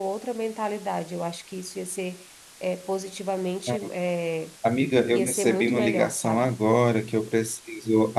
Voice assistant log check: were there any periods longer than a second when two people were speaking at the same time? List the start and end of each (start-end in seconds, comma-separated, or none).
5.1-6.5